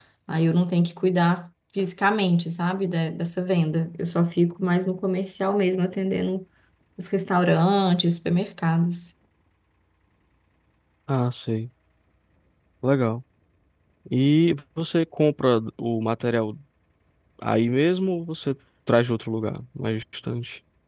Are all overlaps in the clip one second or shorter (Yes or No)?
Yes